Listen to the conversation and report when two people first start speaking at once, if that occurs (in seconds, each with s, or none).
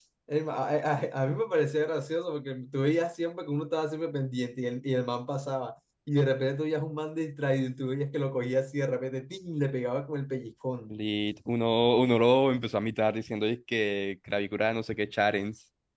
none